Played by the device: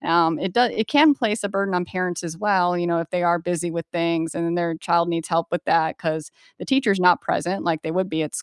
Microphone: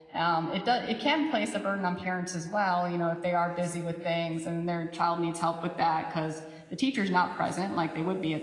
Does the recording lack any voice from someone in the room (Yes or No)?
Yes